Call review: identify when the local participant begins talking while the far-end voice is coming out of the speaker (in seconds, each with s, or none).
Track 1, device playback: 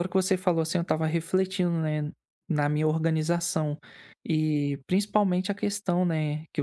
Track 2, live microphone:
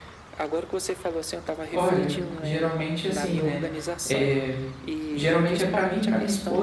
1.7 s